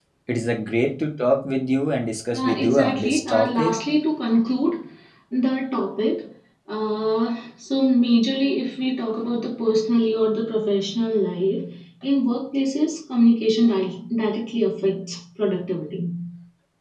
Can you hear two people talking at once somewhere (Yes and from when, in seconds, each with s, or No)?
Yes, from 2.3 s